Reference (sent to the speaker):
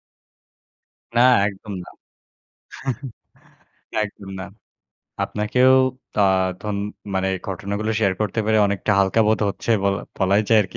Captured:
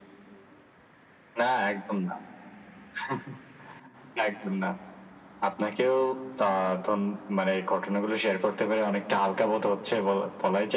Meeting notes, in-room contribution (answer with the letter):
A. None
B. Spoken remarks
A